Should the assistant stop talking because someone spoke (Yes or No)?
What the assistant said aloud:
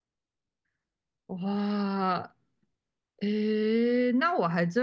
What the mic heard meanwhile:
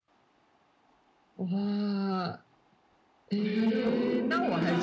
Yes